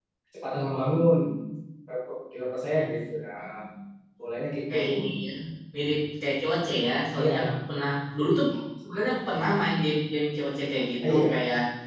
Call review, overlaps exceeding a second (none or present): none